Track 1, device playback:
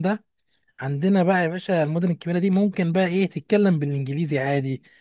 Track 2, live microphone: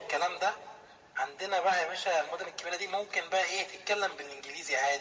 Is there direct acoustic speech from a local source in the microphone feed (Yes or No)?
No